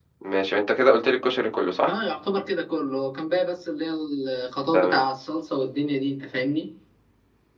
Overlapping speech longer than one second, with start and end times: none

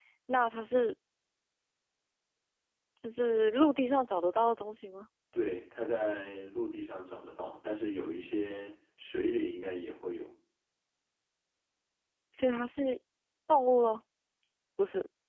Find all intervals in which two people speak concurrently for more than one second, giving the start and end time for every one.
none

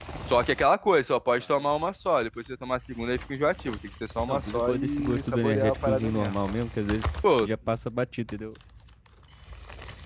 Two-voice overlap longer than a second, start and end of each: 4.3-6.4

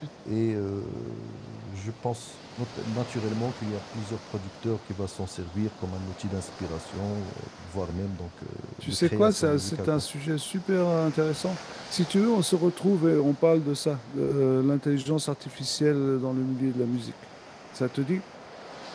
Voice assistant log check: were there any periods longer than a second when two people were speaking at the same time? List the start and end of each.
8.8-10.1

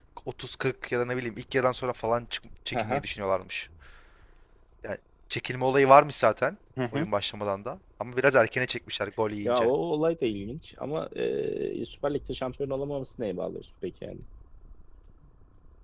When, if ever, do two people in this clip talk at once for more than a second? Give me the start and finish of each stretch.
none

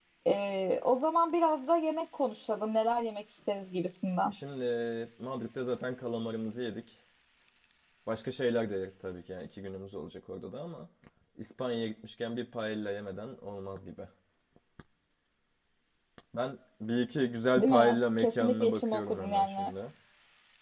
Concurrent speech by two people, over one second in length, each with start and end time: 17.6-19.7

